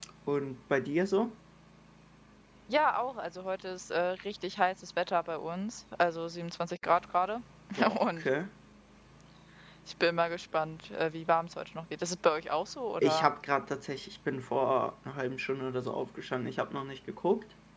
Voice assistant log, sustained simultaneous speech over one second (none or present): none